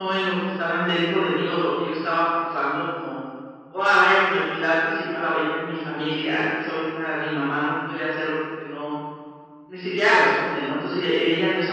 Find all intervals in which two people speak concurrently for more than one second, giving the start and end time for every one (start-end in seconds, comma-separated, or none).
none